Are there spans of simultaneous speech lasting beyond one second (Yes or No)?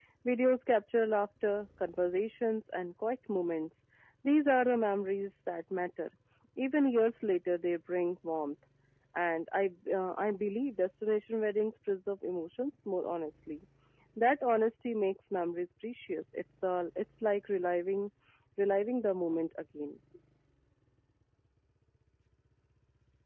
No